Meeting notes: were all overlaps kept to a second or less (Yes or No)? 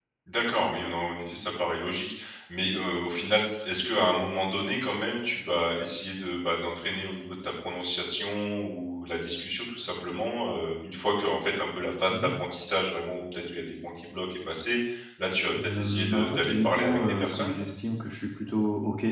No